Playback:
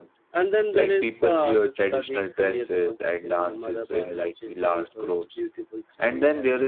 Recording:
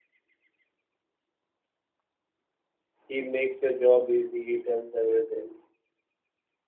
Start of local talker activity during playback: 3.1 s

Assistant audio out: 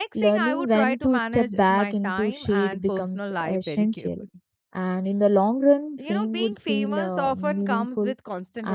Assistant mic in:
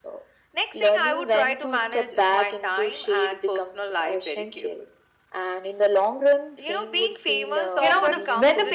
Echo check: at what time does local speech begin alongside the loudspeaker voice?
7.8 s

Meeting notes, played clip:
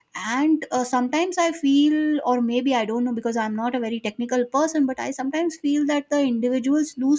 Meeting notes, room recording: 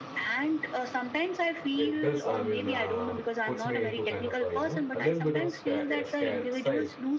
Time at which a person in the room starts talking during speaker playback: 1.8 s

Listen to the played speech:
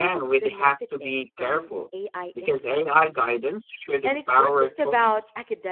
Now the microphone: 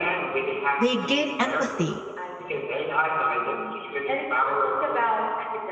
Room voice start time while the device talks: 0.8 s

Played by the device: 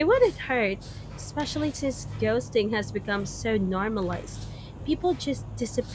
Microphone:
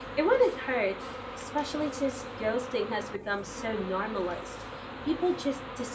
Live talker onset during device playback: none

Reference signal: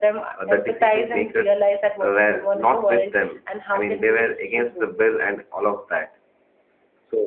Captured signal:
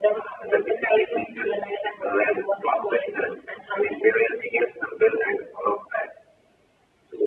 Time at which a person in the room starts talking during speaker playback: none

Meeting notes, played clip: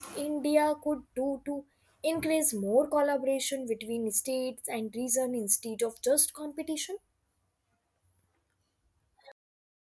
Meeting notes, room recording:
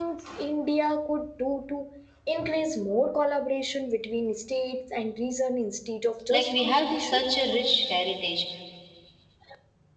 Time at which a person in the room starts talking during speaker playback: 6.3 s

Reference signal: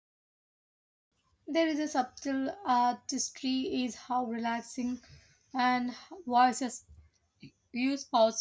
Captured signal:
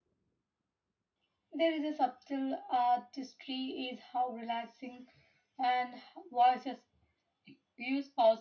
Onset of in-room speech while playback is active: none

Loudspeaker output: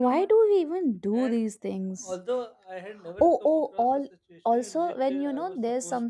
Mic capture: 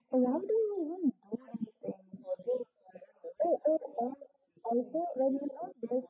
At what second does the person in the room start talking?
none

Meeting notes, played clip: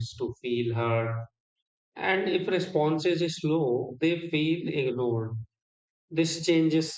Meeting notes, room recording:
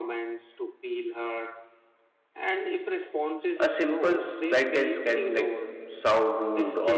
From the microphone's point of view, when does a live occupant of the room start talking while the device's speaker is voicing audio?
3.6 s

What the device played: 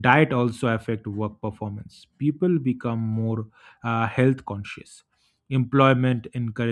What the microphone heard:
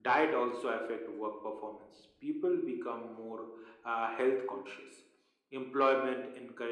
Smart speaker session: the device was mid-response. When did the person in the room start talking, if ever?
none

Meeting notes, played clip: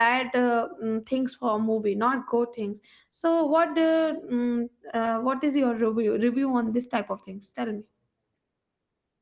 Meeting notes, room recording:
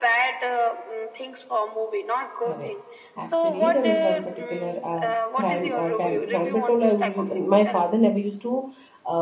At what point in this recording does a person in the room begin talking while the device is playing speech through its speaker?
2.4 s

